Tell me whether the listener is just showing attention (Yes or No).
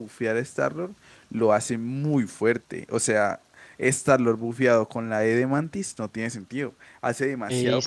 No